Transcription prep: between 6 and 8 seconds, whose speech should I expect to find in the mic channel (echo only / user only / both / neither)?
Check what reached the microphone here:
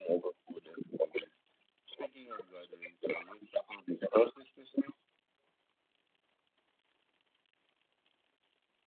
neither